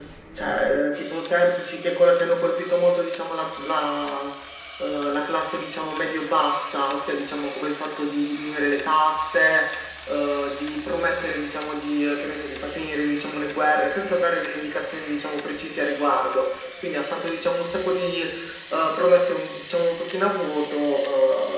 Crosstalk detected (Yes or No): No